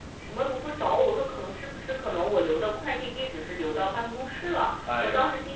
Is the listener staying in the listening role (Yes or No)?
Yes